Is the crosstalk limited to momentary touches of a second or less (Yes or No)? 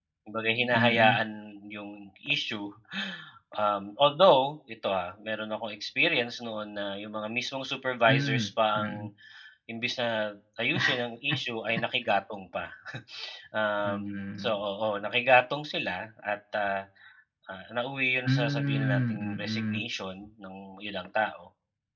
No